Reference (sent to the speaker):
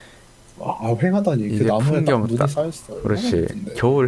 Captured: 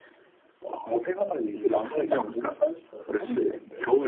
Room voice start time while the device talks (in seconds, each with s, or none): none